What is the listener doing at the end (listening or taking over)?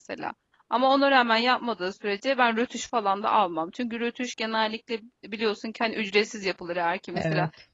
listening